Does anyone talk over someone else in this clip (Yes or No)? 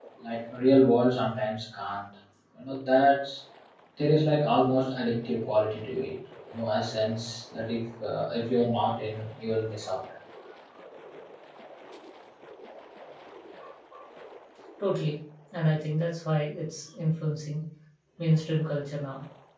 No